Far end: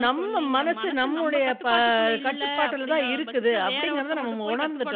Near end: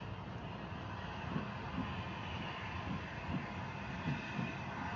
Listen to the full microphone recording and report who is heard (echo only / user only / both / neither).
neither